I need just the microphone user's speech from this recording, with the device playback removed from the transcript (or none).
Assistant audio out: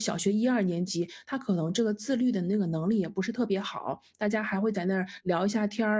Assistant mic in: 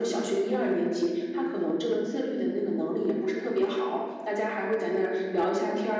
none